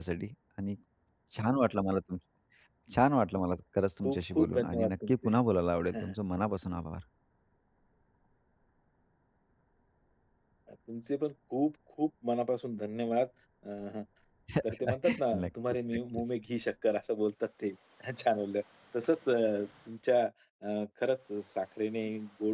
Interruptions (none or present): present